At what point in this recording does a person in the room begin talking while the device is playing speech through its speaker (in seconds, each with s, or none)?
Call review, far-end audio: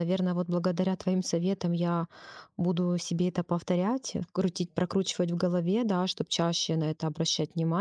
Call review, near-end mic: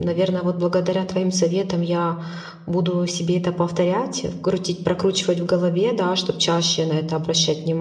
none